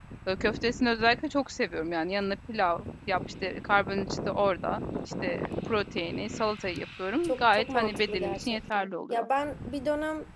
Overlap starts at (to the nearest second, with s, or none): 7 s